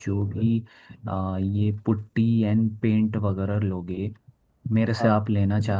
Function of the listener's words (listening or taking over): listening